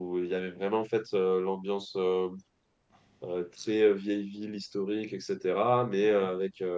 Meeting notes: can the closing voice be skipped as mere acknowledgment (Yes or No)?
Yes